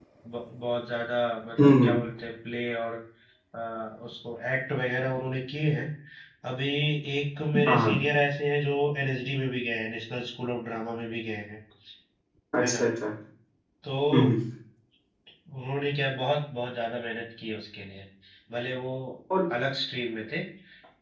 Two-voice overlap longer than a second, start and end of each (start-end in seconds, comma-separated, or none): none